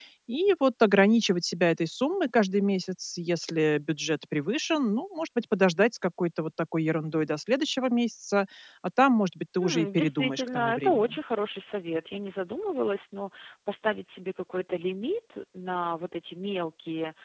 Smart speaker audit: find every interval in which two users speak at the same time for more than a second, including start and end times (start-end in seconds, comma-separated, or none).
9.6-11.1